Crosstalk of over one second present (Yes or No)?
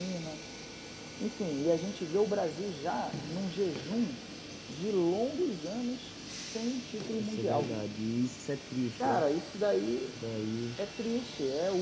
No